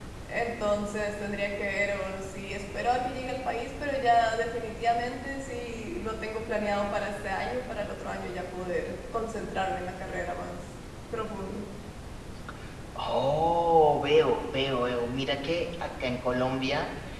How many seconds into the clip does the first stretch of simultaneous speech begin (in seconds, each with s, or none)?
none